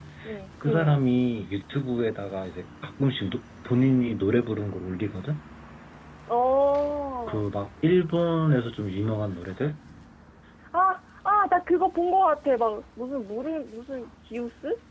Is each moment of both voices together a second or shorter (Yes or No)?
Yes